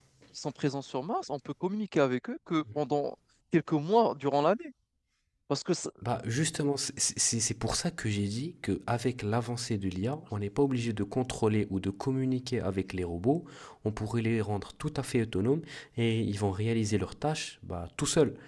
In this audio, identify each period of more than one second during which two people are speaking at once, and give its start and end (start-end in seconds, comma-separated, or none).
none